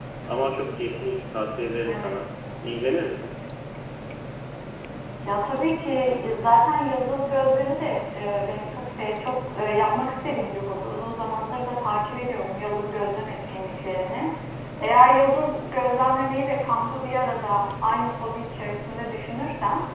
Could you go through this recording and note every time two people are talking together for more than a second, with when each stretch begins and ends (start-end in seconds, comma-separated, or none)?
none